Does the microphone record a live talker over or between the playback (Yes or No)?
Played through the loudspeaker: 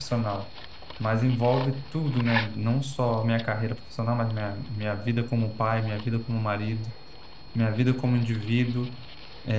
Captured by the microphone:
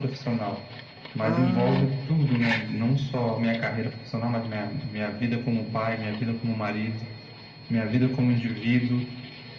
Yes